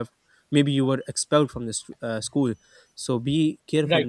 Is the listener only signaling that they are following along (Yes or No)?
Yes